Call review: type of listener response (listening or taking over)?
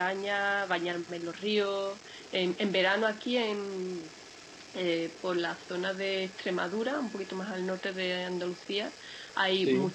listening